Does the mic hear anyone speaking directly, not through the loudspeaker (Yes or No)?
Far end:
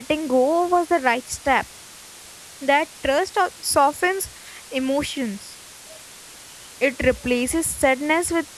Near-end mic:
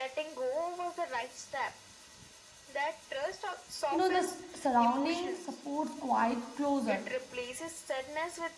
Yes